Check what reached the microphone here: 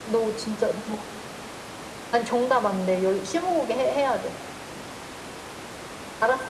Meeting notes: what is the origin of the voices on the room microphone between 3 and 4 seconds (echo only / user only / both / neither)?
echo only